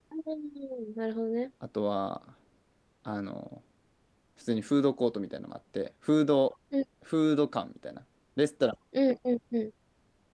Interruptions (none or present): none